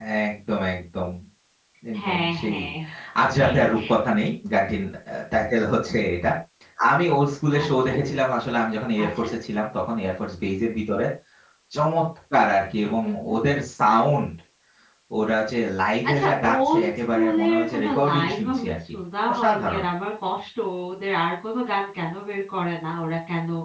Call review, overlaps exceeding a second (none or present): present